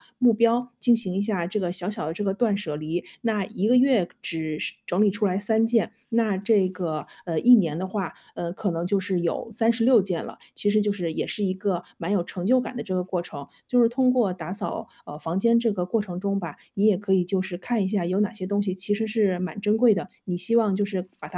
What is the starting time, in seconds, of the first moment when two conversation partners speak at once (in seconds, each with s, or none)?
none